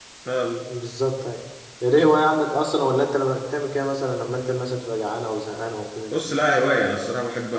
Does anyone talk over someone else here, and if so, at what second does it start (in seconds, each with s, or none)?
none